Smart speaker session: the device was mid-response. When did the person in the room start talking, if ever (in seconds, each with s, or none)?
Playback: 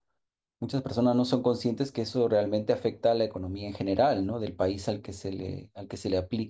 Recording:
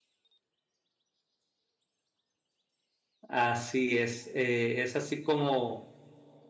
3.3 s